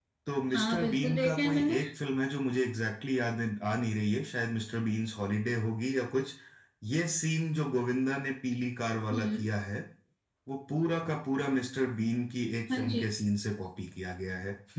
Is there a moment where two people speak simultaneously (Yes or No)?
Yes